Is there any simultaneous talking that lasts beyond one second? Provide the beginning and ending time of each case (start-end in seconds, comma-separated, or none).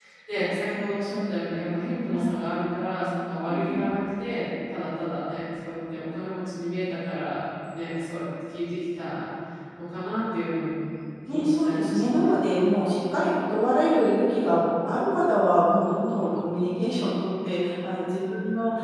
11.3-12.5